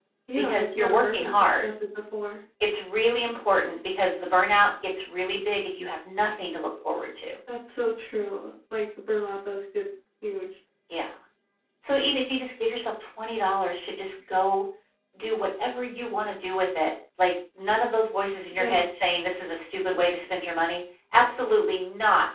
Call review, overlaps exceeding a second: present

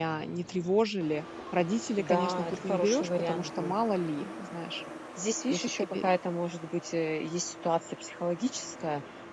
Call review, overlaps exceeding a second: present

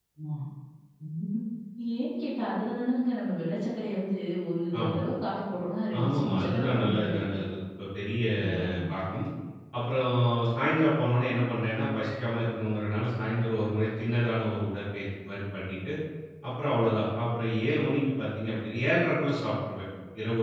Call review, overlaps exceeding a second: present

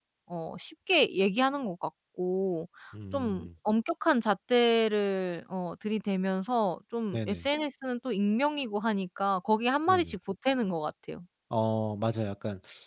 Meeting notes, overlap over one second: none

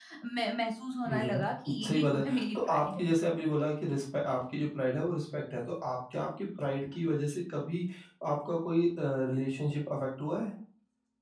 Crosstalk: present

